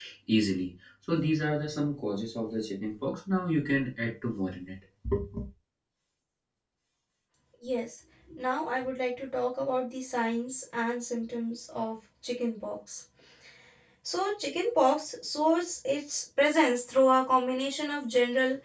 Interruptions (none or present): none